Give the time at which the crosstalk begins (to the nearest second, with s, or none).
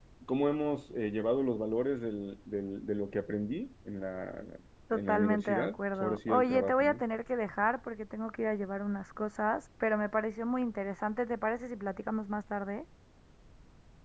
5 s